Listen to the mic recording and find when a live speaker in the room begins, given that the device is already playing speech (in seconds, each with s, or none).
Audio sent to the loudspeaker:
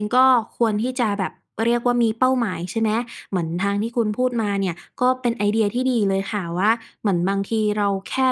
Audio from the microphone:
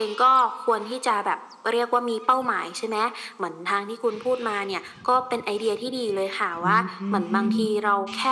6.6 s